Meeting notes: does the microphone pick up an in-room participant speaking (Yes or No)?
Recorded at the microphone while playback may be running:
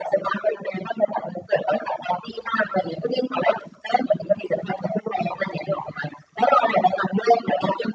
No